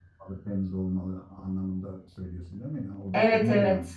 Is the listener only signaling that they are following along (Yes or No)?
No